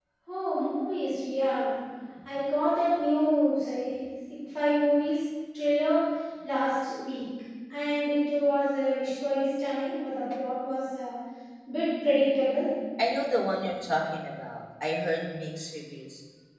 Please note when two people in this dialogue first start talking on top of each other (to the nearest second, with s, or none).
none